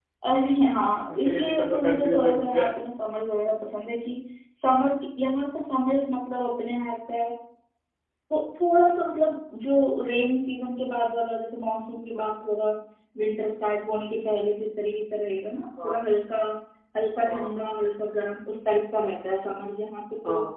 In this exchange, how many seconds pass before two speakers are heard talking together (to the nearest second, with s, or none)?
1 s